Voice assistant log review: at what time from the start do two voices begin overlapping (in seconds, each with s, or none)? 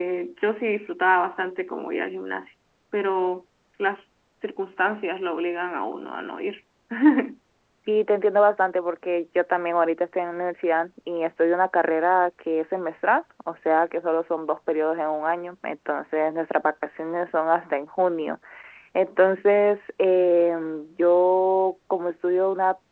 none